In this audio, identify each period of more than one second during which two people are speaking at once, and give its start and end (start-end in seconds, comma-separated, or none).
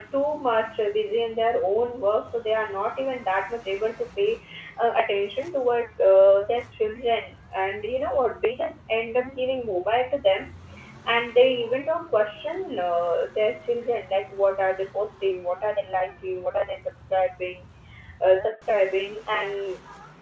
none